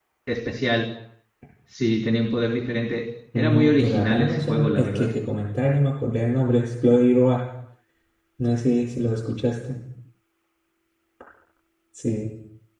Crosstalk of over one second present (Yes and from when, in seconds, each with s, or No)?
Yes, from 3.3 s